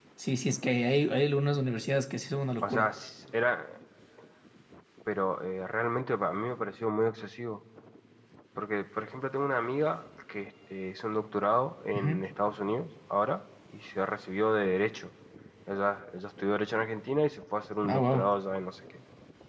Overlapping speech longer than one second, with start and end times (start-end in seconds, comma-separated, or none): none